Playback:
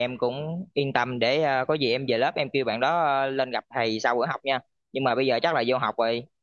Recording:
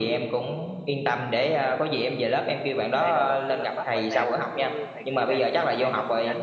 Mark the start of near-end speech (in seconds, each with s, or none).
2.8 s